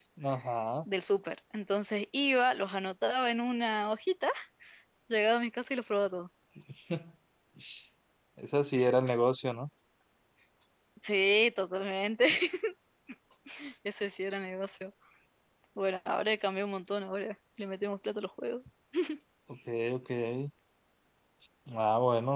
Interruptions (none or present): none